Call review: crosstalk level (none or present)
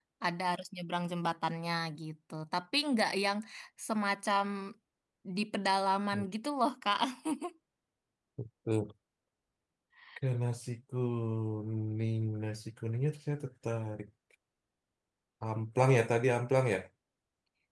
none